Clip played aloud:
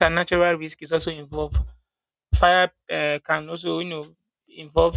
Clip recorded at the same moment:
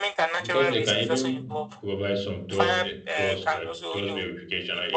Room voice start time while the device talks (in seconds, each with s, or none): 0.4 s